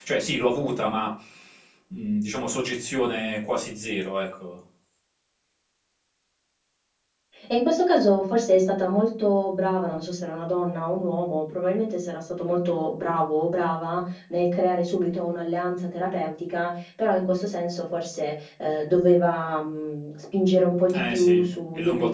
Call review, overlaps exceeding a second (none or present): none